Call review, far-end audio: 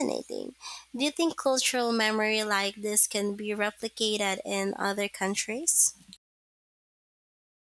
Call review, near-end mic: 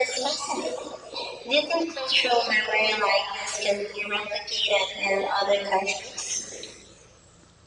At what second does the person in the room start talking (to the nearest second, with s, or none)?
none